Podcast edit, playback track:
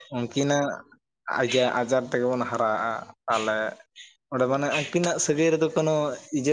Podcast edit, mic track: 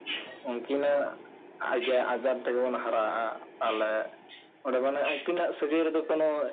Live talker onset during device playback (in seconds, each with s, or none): none